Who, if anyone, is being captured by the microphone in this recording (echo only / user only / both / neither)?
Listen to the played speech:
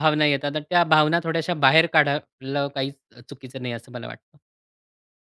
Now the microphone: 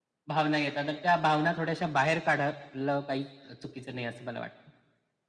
echo only